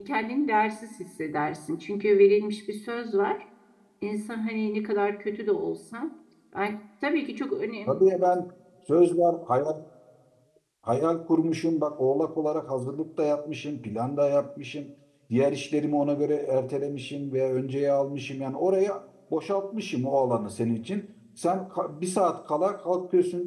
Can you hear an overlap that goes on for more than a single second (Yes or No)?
No